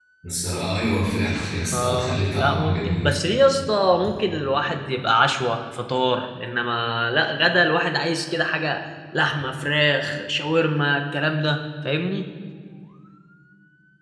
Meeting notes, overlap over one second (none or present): present